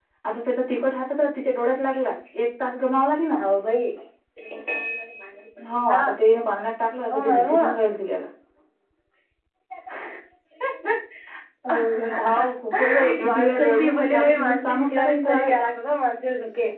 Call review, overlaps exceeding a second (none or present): present